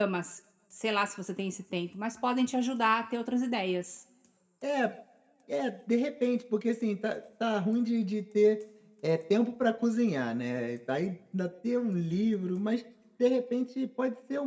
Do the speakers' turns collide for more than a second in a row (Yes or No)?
No